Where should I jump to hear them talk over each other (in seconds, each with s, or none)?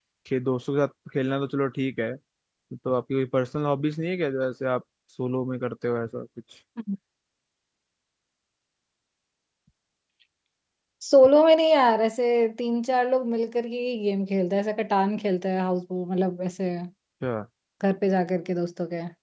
none